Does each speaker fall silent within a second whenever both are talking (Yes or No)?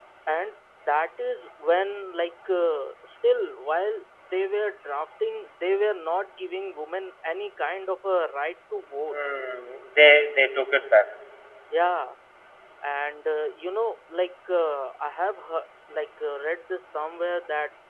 Yes